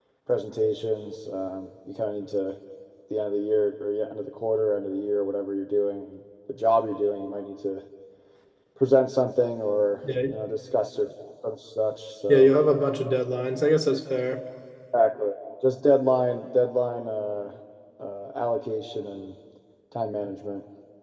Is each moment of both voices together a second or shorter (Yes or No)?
Yes